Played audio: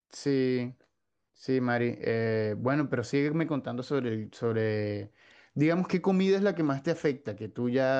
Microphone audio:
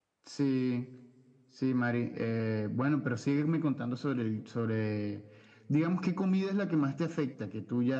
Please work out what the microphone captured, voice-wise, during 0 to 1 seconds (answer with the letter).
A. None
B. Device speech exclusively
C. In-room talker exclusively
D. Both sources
B